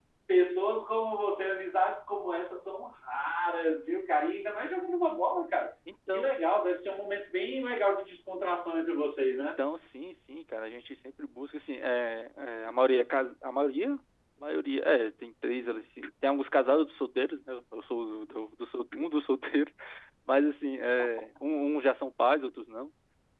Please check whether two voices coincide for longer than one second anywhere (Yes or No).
No